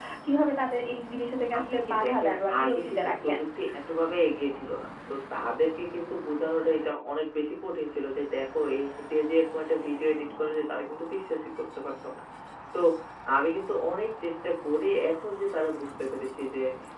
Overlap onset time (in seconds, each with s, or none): 1.5 s